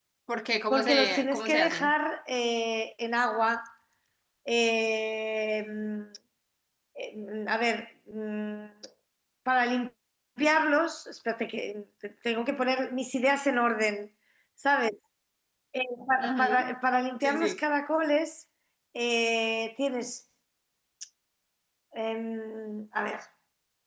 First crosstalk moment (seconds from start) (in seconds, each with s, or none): 0.7 s